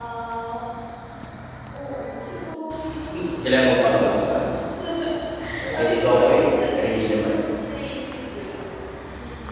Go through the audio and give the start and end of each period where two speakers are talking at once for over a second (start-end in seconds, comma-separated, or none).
5.7-7.4